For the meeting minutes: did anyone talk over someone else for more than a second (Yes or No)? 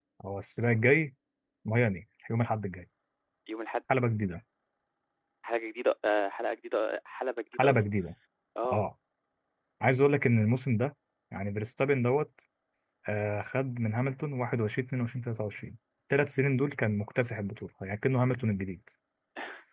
No